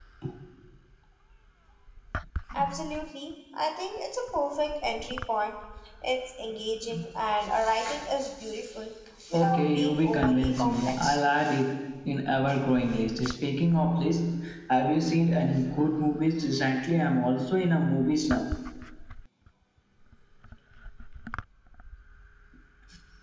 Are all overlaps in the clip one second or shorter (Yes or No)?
No